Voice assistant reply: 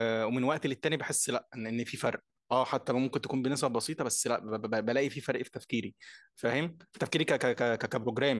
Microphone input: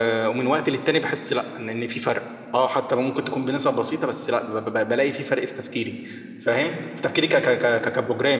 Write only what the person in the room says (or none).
none